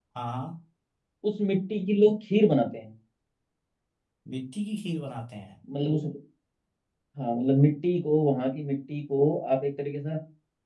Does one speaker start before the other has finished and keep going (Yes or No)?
No